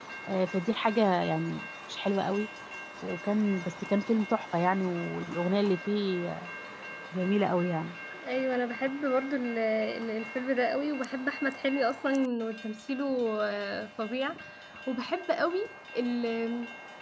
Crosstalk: none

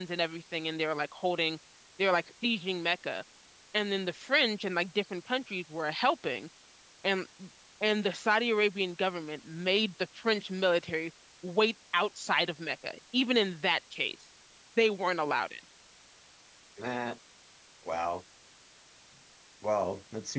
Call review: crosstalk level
none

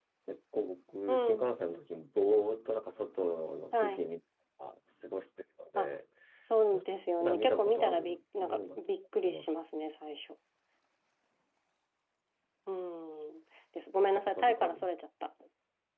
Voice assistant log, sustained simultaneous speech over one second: present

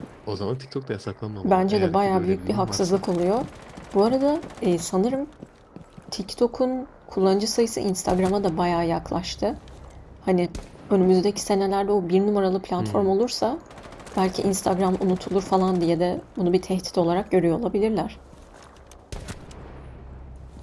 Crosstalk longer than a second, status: present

